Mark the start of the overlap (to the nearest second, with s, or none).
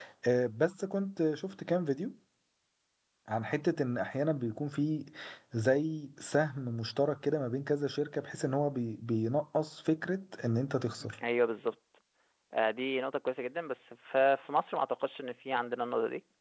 none